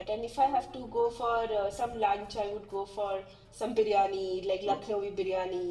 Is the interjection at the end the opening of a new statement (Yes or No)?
No